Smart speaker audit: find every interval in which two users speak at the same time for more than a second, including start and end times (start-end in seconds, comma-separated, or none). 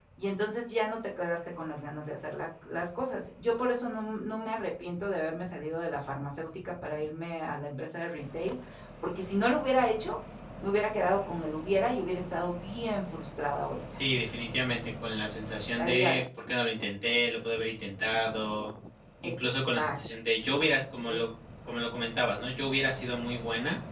none